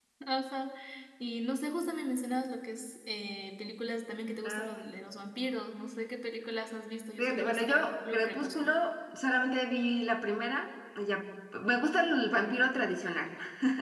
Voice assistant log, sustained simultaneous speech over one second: present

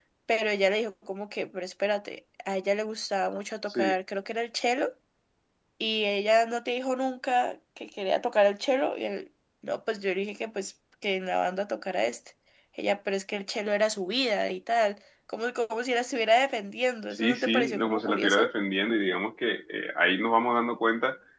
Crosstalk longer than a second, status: present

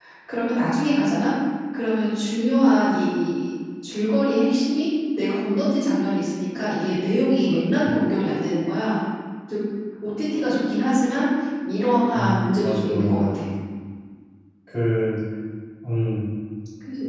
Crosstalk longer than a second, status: present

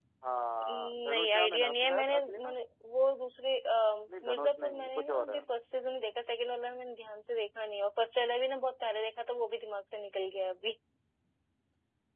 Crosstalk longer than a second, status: present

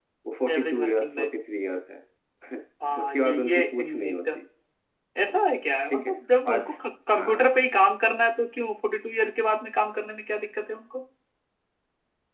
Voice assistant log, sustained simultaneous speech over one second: present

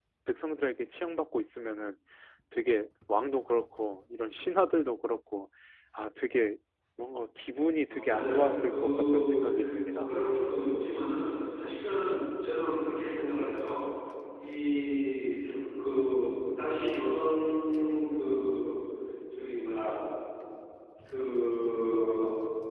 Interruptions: present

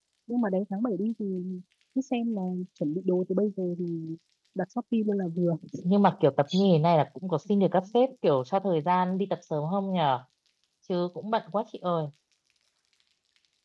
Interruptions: none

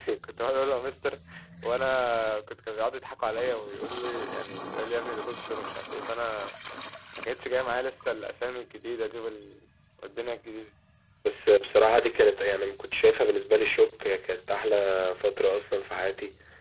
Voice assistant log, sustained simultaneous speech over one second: none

